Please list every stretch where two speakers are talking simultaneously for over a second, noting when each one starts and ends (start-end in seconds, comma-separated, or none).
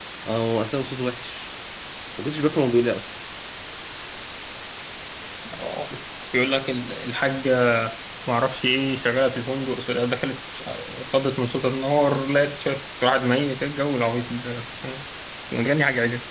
none